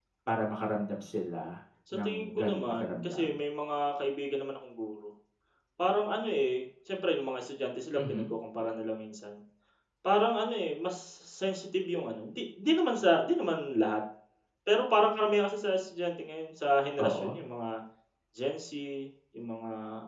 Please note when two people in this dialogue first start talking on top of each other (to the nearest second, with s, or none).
2 s